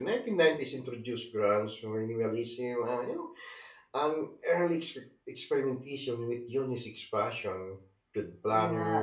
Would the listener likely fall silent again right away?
Yes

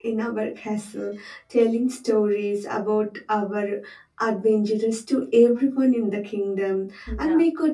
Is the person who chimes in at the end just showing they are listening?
Yes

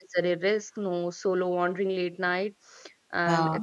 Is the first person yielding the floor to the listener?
No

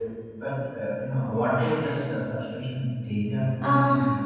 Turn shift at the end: Yes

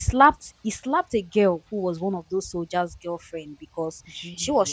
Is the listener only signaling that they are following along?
Yes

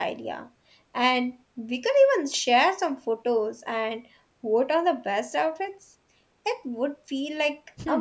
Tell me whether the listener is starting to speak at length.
Yes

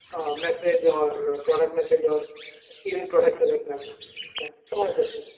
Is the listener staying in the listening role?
No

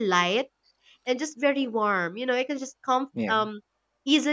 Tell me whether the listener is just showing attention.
Yes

